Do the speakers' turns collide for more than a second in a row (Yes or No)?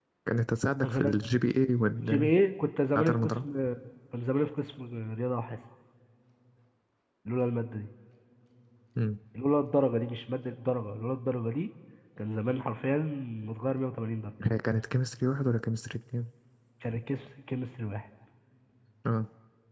No